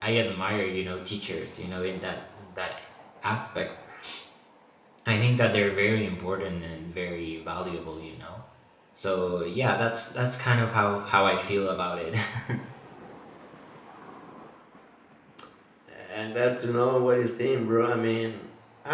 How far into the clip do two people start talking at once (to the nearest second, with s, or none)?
none